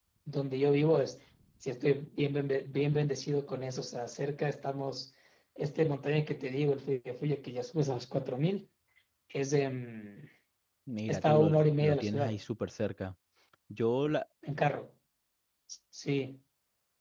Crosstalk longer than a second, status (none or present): present